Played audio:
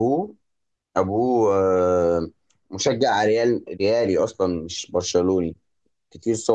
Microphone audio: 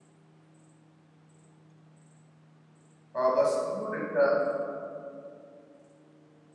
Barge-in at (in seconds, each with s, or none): 3.1 s